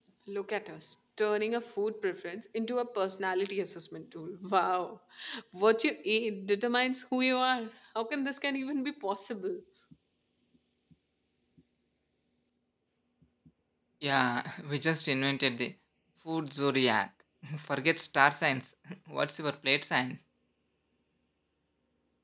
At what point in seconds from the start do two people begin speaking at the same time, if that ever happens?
none

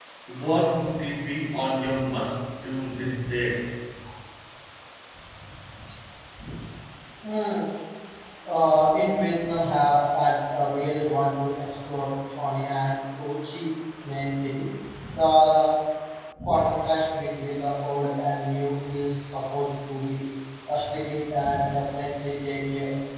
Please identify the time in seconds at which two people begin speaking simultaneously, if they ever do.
none

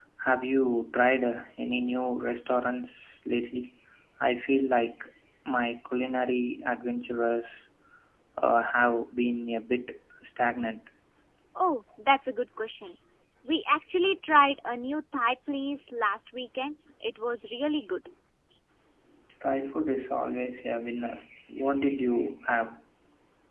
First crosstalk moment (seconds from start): none

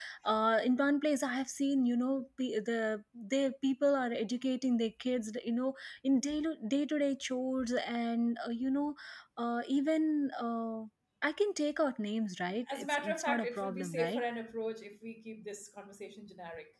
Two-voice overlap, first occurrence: 12.7 s

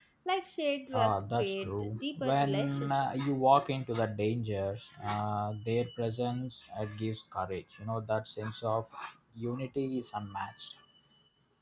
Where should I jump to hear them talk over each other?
0.9 s

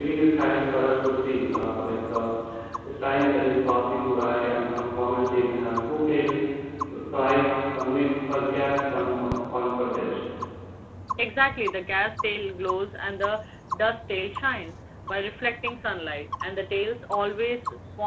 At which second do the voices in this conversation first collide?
none

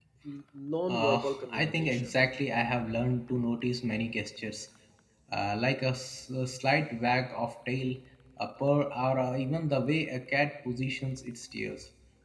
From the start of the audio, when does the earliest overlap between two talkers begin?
0.9 s

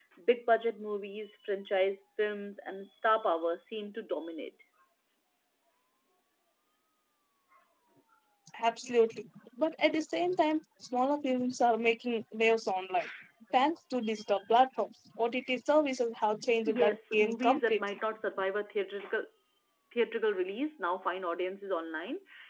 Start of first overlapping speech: 16.7 s

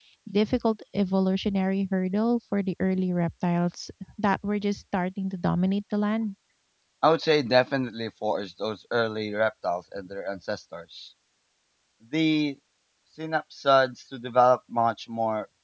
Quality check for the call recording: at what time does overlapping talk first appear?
none

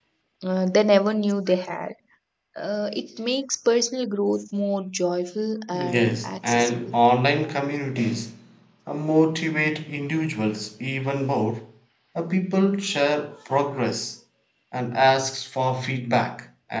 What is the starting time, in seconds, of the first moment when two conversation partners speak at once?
5.7 s

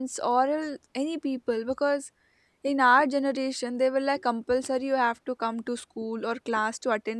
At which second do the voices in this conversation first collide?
none

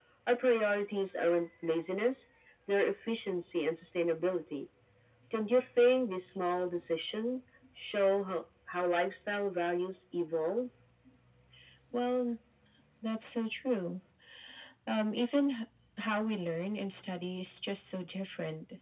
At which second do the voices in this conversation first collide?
none

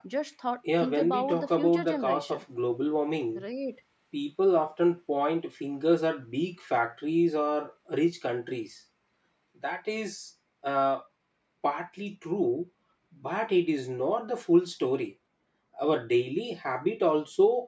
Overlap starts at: 0.8 s

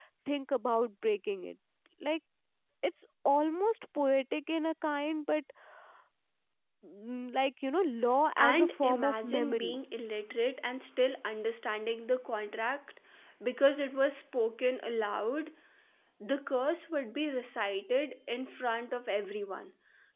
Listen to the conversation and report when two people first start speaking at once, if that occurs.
8.4 s

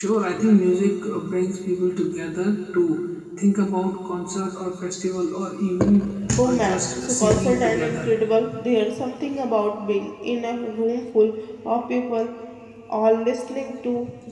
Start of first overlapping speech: 6.4 s

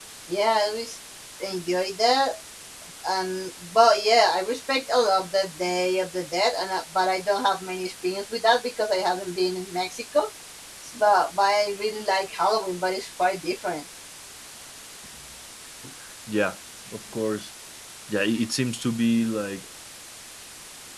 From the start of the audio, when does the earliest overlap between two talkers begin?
none

